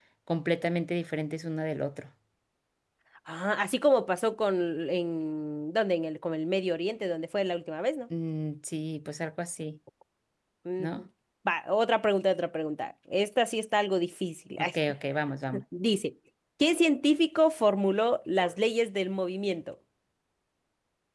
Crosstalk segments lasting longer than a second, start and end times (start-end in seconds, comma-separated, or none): none